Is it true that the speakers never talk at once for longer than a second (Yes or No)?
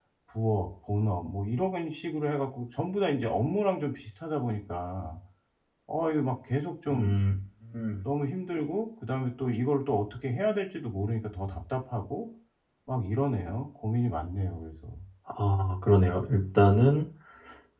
Yes